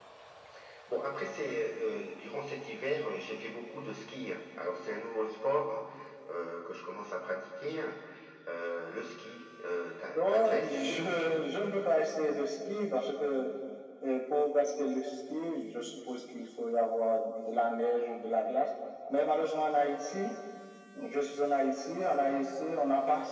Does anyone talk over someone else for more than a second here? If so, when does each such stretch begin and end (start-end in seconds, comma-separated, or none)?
10.2-11.4